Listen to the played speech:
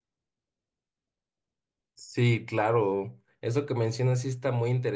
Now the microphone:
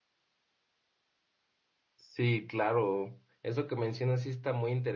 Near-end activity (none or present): none